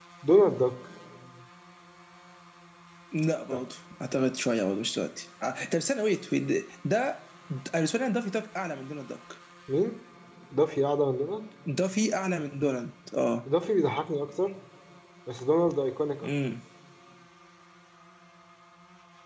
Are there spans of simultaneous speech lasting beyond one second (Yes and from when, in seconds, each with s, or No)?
No